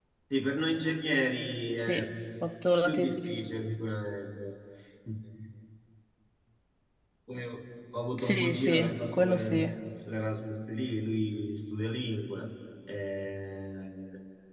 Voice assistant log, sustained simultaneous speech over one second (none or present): present